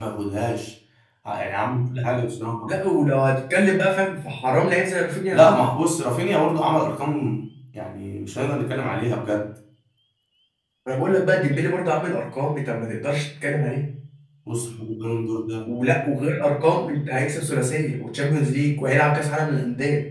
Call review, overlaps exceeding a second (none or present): none